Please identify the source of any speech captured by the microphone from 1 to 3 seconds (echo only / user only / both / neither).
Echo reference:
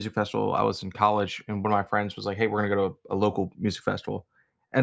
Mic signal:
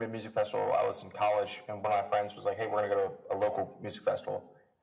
echo only